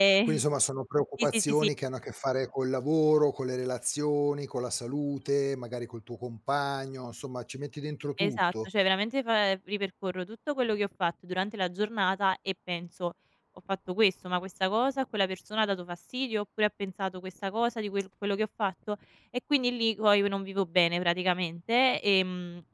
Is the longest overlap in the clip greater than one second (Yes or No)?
No